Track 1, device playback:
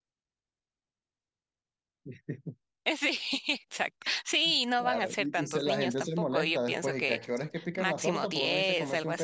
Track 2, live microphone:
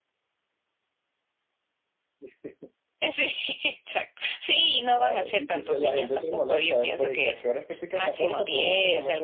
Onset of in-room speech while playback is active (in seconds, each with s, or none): none